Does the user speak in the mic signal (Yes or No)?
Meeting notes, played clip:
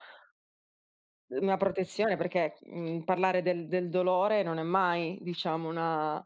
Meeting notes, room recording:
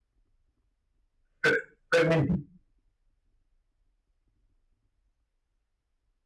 Yes